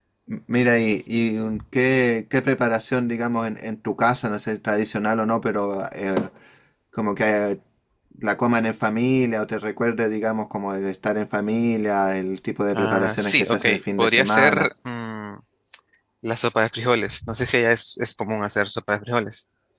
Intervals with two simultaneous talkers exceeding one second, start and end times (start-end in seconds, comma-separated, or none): 12.8-14.7